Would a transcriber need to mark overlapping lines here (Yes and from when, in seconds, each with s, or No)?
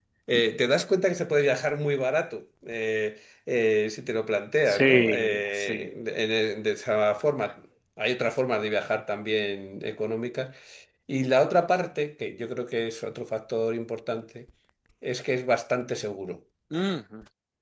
Yes, from 4.7 s